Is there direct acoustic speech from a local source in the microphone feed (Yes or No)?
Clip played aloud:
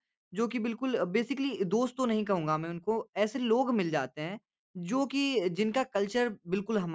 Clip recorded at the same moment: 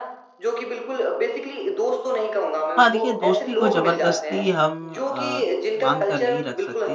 Yes